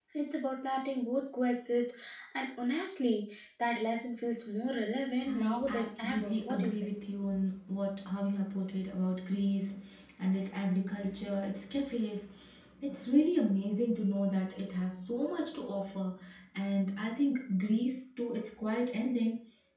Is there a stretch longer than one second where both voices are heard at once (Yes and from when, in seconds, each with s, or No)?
Yes, from 5.2 s